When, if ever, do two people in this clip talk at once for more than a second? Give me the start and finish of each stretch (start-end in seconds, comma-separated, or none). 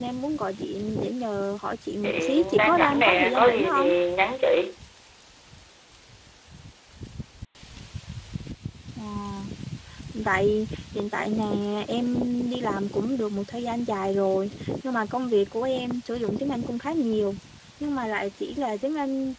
2.0-3.9